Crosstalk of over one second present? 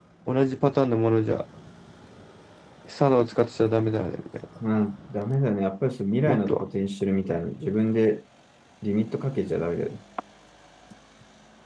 No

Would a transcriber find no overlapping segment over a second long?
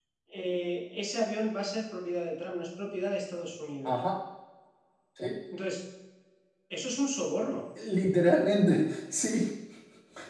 Yes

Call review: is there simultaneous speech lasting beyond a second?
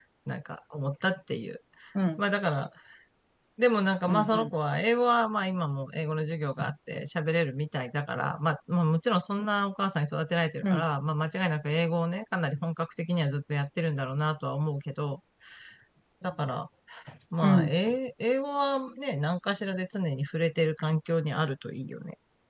No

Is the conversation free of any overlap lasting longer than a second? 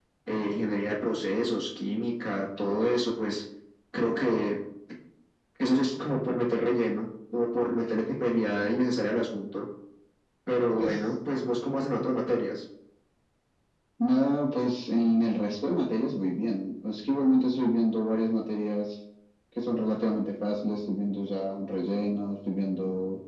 Yes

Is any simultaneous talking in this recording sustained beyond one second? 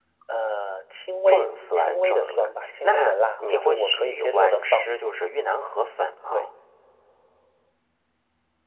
Yes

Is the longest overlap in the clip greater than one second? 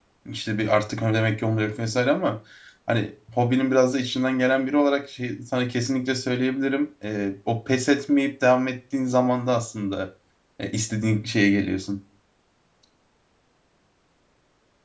No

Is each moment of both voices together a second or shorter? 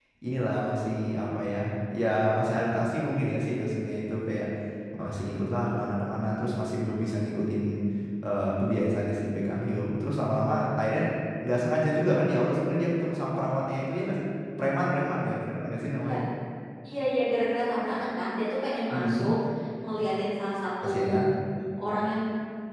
Yes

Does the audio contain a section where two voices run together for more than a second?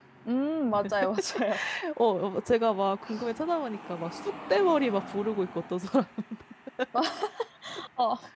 No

